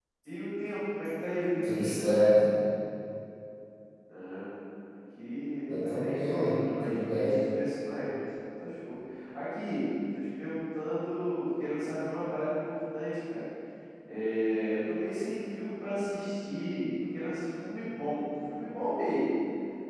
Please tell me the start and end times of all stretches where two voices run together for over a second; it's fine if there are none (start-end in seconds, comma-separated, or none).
5.8-7.4